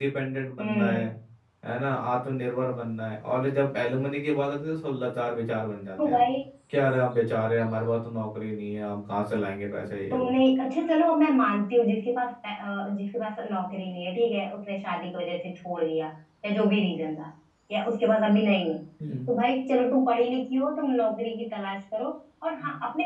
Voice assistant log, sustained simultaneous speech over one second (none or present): none